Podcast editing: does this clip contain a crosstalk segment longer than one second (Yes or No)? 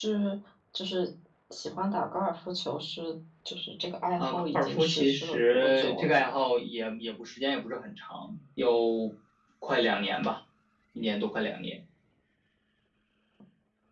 Yes